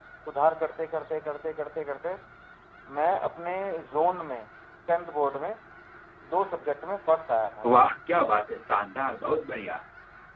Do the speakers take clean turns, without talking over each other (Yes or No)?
Yes